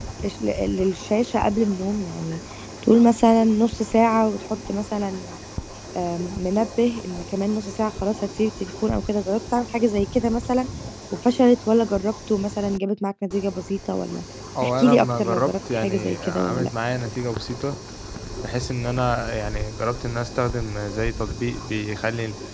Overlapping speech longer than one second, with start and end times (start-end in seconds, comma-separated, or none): 14.6-16.7